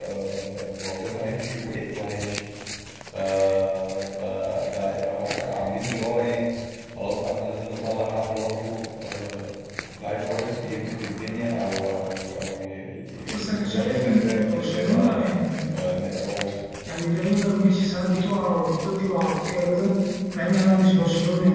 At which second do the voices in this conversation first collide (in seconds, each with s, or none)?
13.3 s